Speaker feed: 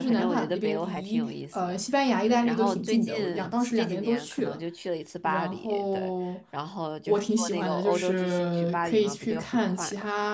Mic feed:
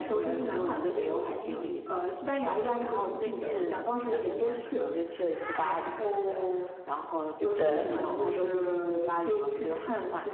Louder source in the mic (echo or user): user